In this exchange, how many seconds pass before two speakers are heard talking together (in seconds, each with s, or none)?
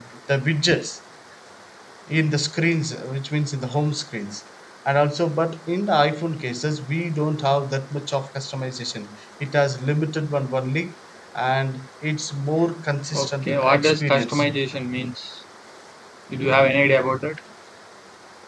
13.1 s